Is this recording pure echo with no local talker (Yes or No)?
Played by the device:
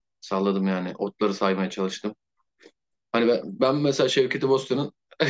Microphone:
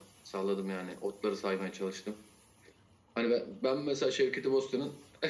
Yes